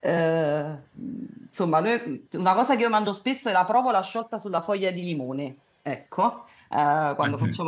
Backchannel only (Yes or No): Yes